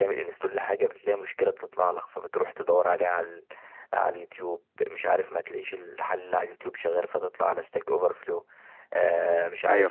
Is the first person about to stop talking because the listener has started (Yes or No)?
No